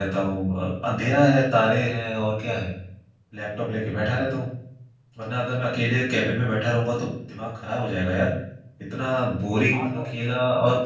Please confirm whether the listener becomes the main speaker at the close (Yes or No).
No